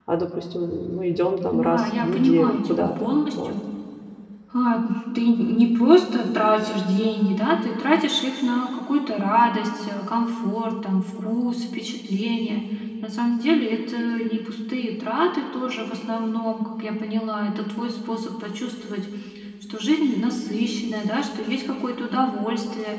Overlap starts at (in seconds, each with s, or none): 1.5 s